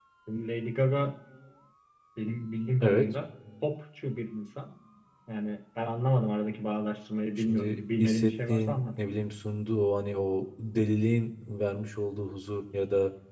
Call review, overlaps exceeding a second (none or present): present